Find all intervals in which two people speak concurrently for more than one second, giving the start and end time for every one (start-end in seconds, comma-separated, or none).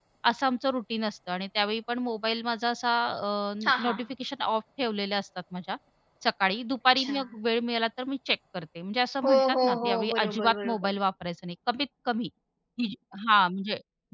9.2-11.0